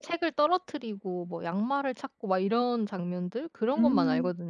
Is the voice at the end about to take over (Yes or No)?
Yes